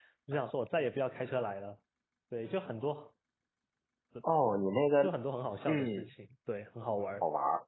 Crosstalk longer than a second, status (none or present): none